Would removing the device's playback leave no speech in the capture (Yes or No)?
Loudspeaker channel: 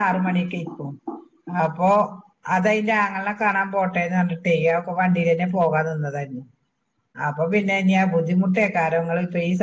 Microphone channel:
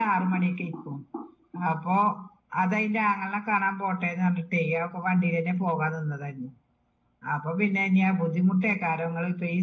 Yes